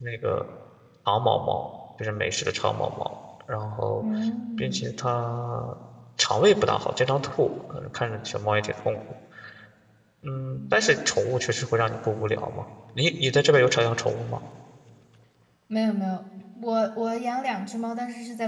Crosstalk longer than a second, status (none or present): none